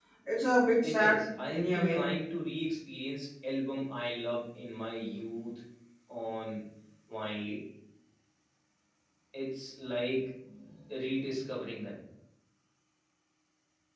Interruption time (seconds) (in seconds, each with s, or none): 0.8 s